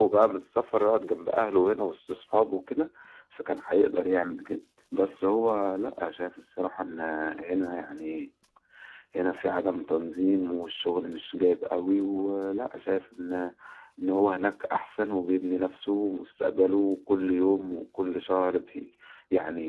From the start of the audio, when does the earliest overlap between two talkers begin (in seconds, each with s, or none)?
none